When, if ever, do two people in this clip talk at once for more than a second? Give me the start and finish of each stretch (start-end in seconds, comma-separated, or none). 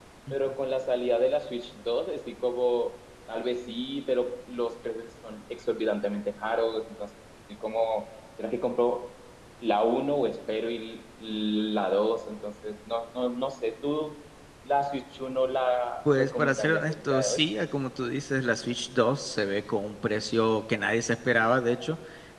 16.1-17.4